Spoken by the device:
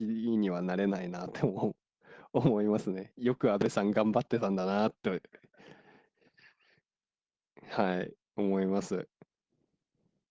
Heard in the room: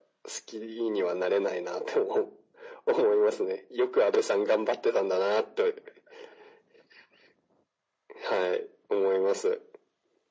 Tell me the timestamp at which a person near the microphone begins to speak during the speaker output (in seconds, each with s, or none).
none